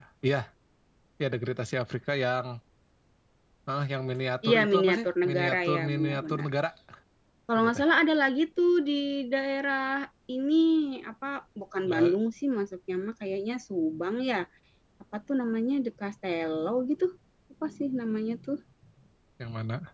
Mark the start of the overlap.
4.5 s

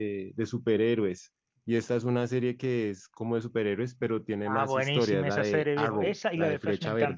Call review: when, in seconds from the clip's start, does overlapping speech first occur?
4.5 s

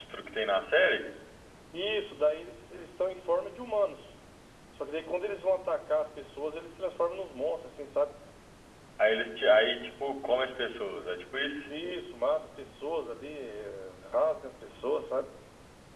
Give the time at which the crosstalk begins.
none

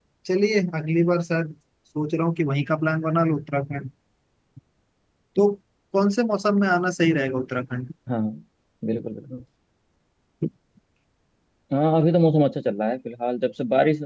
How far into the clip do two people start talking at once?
none

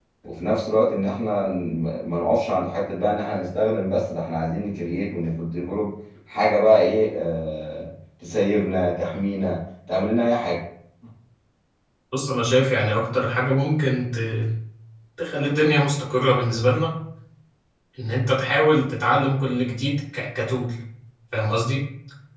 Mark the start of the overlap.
none

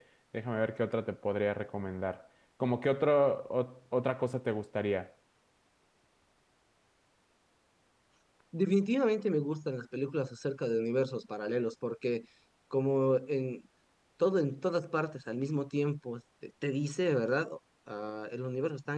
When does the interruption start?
none

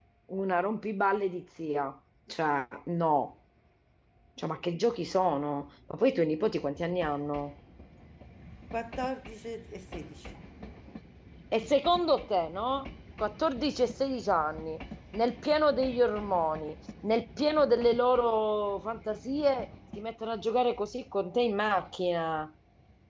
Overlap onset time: none

